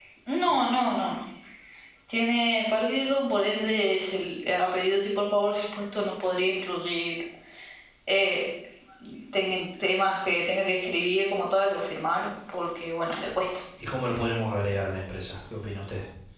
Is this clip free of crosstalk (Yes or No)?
Yes